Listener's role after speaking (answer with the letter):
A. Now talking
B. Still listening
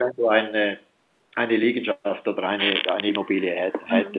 A